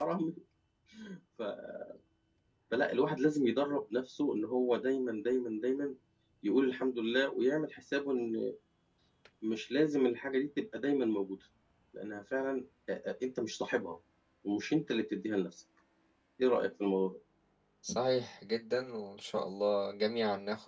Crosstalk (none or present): none